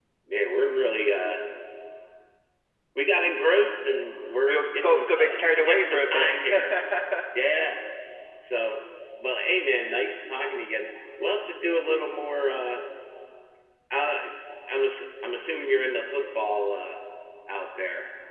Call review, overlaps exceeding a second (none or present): present